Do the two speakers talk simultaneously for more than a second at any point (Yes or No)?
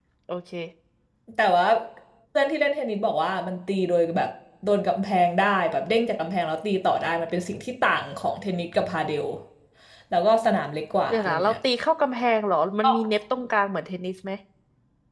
No